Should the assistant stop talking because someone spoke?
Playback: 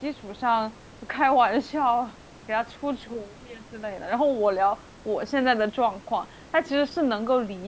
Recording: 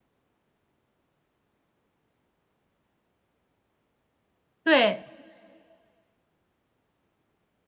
Yes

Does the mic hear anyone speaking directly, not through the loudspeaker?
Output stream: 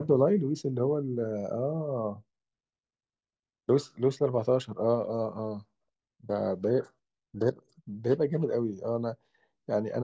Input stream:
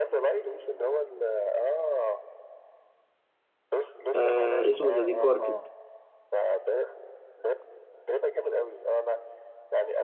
Yes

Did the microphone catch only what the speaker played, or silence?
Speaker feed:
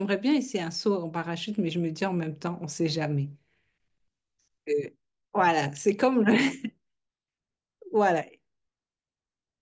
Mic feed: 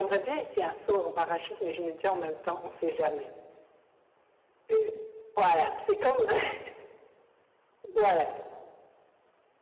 Yes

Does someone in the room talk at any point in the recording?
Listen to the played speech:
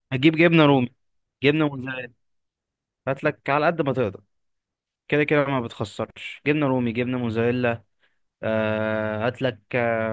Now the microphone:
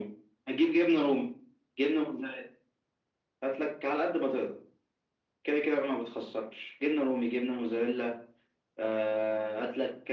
No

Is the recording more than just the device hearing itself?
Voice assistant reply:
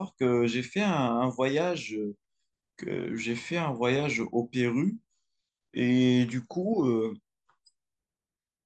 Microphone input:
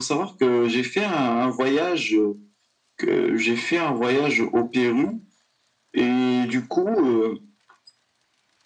No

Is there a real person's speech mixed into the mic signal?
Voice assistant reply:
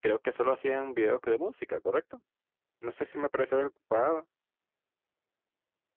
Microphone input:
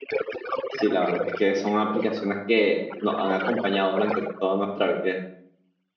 Yes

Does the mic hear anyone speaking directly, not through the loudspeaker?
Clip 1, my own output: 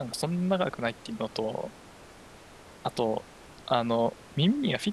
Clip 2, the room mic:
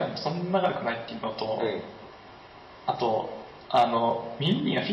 Yes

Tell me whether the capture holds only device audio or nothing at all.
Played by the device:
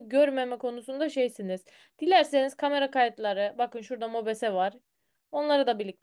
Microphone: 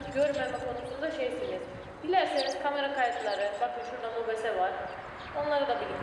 Yes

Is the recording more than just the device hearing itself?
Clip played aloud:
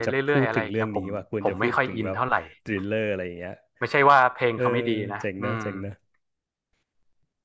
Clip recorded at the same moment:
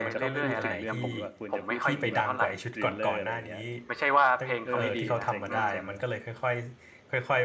Yes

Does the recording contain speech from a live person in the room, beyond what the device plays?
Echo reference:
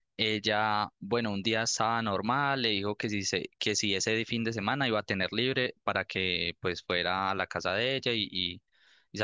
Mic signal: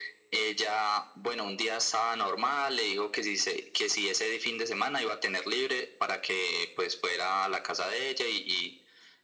No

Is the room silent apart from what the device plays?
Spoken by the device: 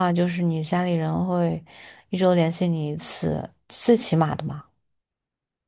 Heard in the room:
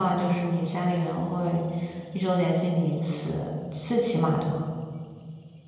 Yes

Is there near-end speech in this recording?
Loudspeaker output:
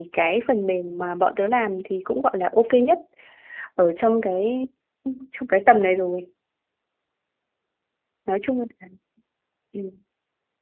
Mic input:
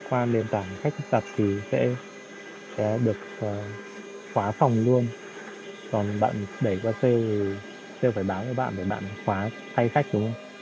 Yes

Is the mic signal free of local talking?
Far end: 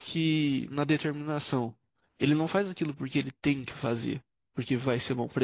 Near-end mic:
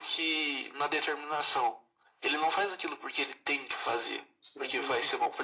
No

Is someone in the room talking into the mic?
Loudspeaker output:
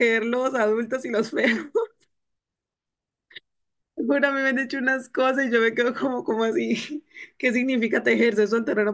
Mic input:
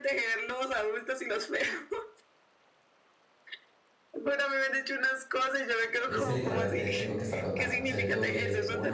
Yes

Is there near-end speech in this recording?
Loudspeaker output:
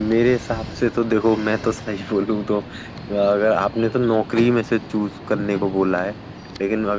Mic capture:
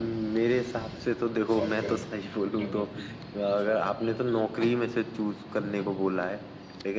Yes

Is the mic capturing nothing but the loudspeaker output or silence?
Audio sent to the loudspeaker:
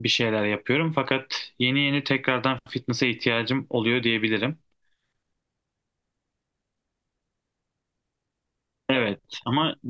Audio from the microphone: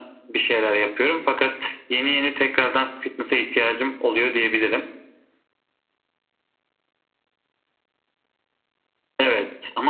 Yes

